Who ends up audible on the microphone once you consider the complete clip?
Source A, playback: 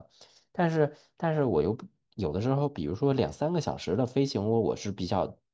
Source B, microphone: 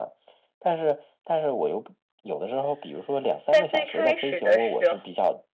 both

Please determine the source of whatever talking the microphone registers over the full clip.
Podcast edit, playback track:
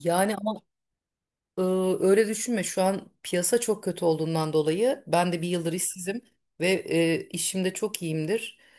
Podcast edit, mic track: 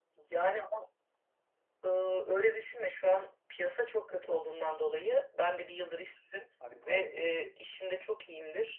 both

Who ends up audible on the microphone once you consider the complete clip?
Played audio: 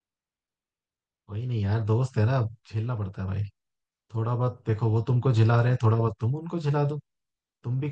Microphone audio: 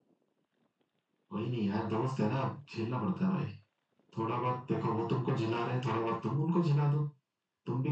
echo only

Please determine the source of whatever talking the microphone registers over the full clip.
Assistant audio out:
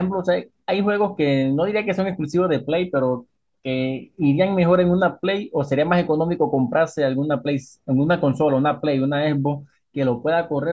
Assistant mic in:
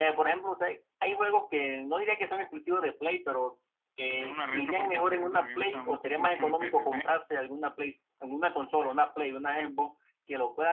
both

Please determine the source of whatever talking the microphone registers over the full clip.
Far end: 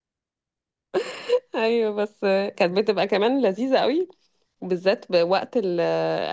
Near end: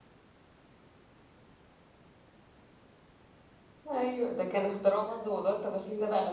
user only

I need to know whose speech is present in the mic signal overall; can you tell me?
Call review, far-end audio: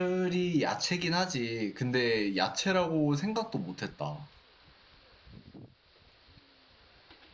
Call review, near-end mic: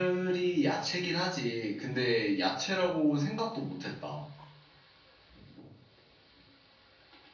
echo only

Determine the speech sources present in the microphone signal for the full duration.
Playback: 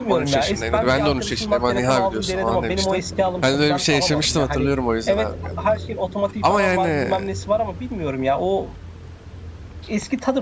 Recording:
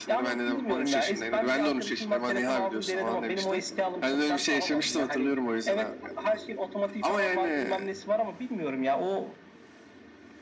echo only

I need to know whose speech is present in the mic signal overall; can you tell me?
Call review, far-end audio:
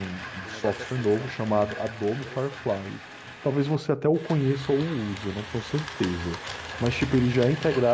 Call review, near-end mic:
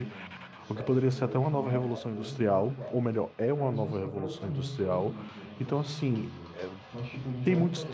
both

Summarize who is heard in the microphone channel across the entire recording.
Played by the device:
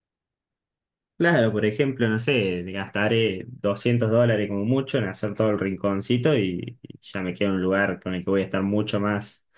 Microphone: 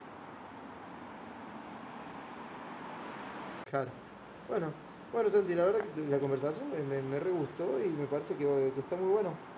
user only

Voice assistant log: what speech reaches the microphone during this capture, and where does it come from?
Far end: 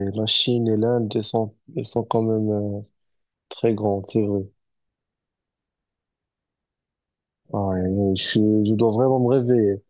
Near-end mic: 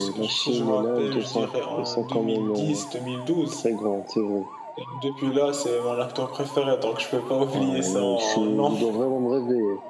both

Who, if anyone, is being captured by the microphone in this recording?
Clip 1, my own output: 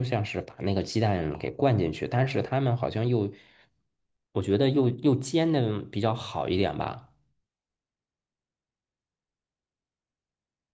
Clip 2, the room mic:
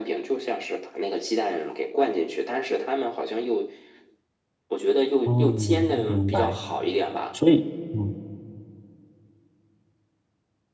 both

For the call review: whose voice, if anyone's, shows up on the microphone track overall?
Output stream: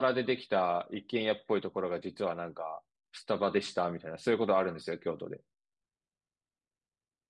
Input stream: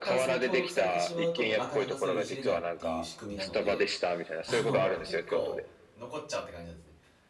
both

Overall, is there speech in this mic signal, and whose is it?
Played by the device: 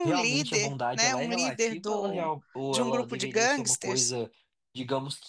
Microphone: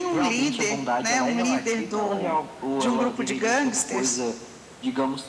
echo only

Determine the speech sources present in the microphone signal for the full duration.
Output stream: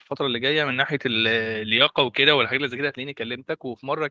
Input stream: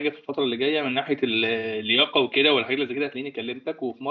echo only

